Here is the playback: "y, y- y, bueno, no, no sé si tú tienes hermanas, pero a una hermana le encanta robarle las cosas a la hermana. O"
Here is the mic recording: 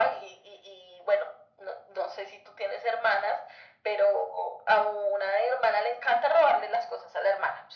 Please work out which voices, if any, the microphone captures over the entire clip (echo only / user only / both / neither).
echo only